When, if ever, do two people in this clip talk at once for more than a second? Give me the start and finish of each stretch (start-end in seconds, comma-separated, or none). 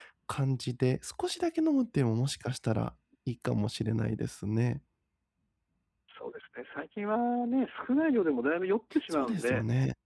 none